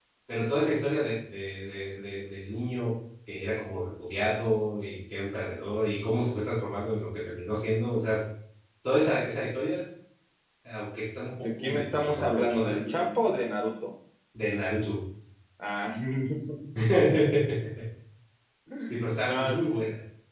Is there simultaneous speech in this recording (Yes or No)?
Yes